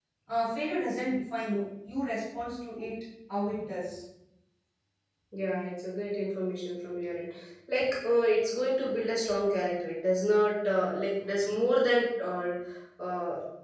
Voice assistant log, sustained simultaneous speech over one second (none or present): none